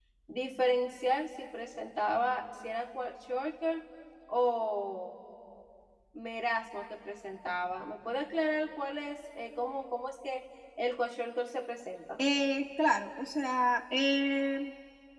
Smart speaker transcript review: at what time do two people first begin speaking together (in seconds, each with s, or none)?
none